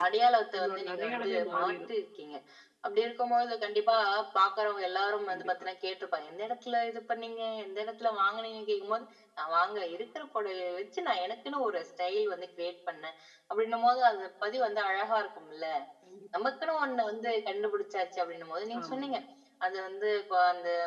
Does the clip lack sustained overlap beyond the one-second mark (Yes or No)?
No